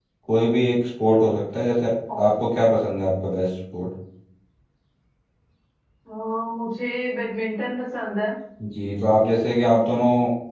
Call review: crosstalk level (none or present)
none